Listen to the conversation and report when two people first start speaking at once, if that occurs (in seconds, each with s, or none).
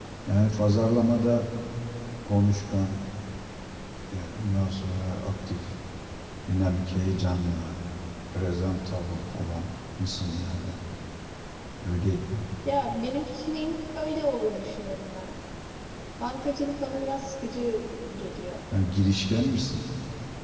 none